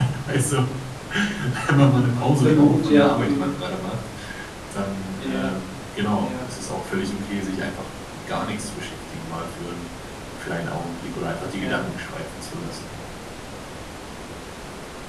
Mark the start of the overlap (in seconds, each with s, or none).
2.2 s